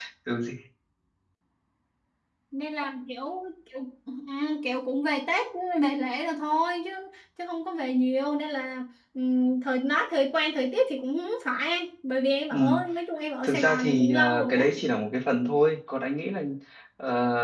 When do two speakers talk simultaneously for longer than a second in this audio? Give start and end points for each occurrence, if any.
13.4-14.7

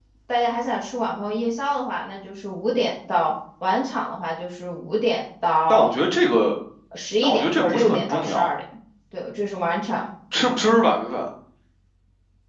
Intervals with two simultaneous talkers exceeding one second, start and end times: 7.2-8.5

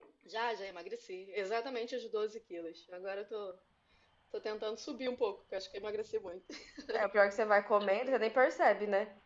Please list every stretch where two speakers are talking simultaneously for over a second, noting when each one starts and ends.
none

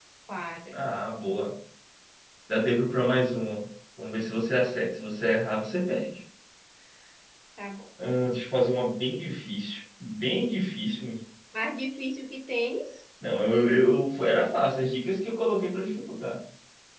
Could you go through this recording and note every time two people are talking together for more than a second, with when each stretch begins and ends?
none

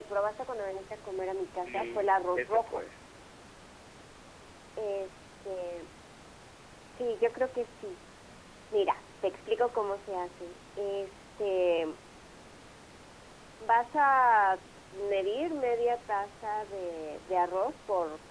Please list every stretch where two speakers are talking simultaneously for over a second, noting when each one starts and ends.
1.4-2.8

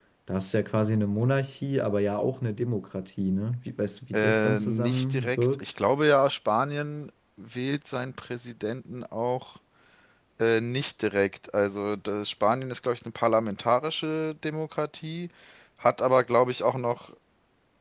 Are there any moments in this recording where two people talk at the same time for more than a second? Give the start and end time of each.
4.1-5.7

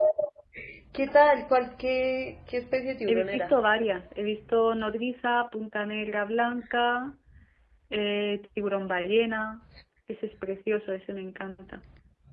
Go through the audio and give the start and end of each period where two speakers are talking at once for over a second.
none

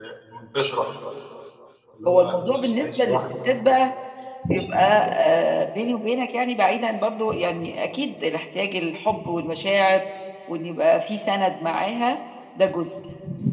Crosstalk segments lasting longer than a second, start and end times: 2.1-3.3

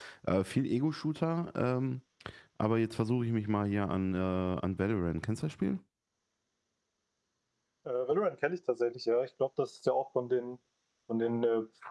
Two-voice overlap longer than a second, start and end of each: none

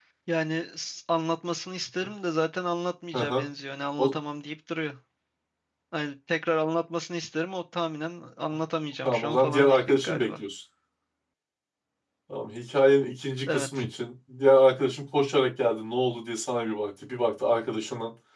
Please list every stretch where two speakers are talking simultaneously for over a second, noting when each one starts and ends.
9.1-10.4

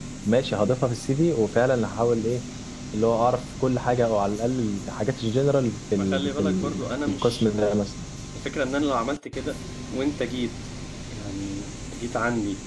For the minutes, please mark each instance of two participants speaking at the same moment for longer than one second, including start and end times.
6.0-7.5

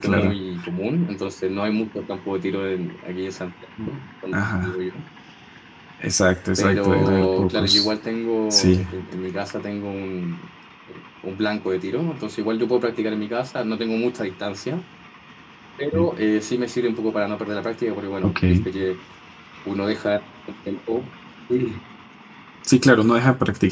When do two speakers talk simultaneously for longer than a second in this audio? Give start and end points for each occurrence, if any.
6.6-7.9

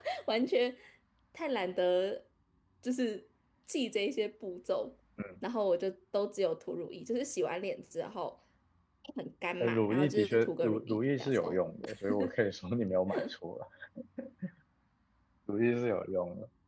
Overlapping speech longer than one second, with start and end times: 9.6-11.6

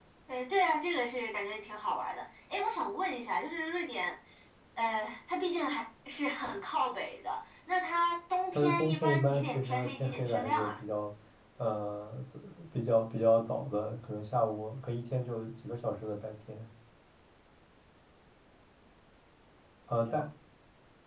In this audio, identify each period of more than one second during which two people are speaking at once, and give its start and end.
8.5-10.8

